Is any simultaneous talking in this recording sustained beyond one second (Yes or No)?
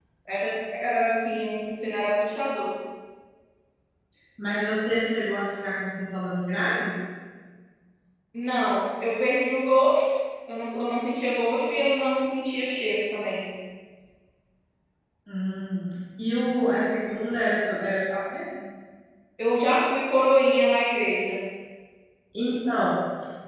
No